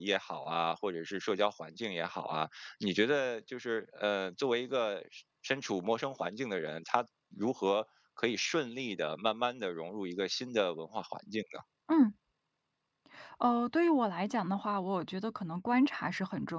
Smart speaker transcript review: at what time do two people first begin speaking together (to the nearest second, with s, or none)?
none